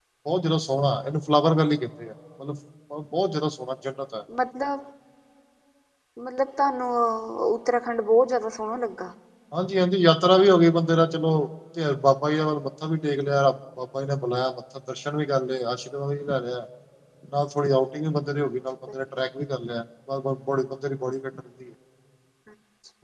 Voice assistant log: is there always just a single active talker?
Yes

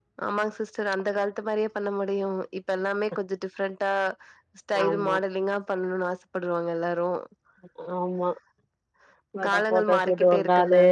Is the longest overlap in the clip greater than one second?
Yes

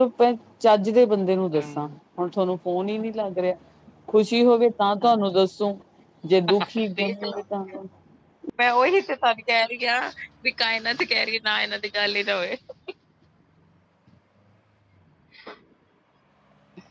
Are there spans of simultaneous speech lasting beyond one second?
No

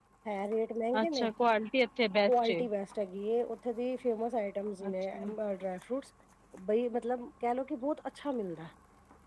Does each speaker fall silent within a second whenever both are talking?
Yes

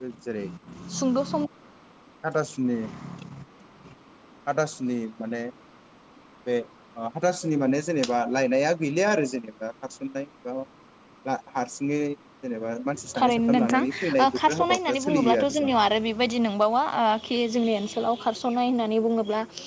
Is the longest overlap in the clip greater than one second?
Yes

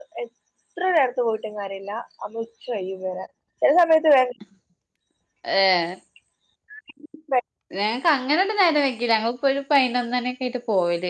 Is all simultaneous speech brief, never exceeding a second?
Yes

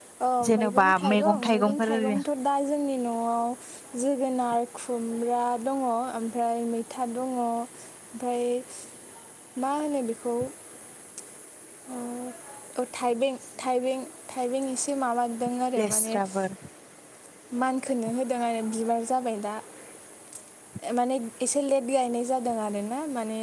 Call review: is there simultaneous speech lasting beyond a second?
Yes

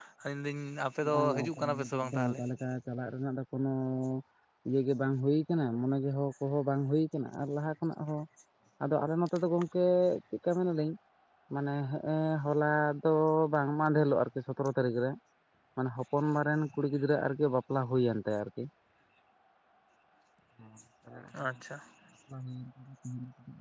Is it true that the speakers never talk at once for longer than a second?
No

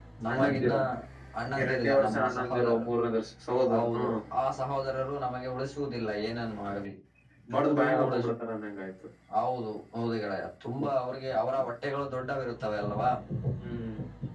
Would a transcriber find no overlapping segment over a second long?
No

